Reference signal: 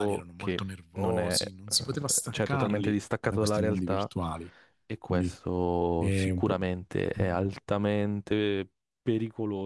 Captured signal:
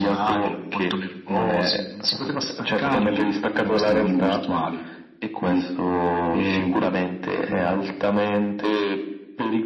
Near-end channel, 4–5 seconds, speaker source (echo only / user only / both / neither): echo only